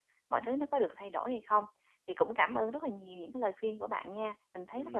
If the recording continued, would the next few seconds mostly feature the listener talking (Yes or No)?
Yes